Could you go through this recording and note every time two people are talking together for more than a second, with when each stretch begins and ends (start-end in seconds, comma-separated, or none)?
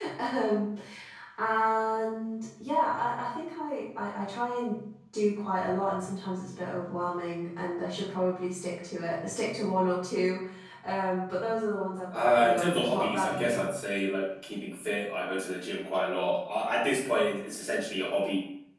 12.1-13.6